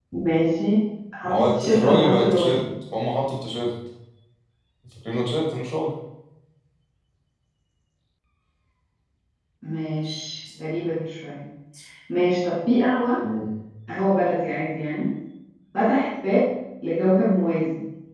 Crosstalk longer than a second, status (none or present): present